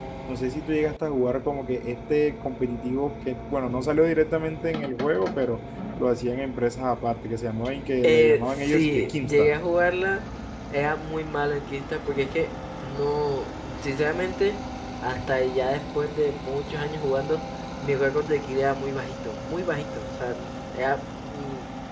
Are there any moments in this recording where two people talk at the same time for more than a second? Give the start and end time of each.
8.0-9.6

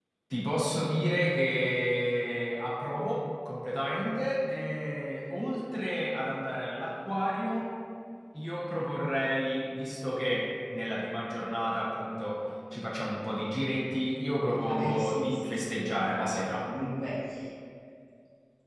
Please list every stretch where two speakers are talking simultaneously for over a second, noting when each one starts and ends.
14.7-16.6

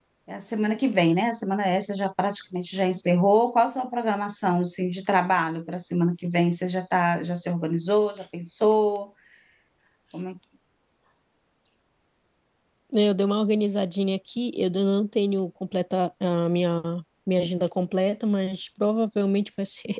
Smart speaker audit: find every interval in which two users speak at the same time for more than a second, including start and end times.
none

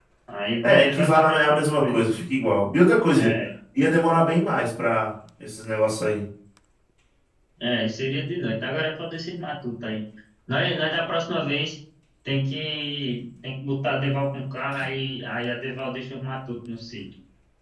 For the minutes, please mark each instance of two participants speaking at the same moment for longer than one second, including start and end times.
0.6-2.0

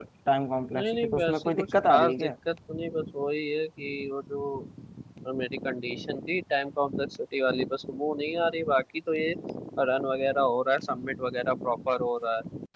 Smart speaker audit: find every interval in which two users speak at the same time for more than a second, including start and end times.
0.7-2.3

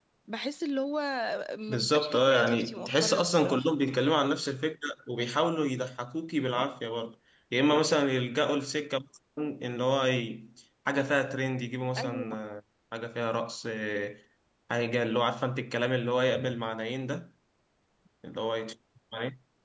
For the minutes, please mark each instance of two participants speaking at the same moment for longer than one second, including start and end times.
1.7-3.8

